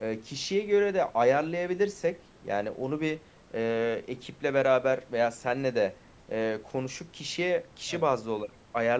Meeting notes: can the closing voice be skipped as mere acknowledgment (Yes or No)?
Yes